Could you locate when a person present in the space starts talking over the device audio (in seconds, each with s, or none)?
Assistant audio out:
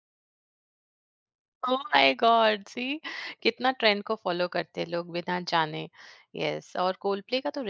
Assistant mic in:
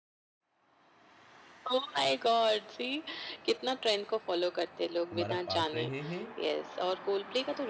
5.1 s